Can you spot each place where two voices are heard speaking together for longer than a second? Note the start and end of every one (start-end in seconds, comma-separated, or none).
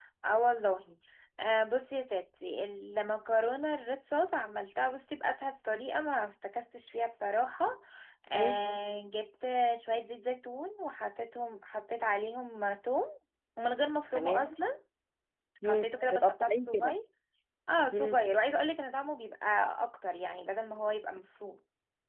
15.6-16.9